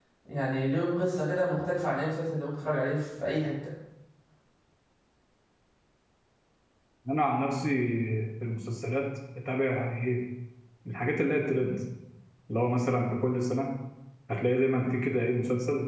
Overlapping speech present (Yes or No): No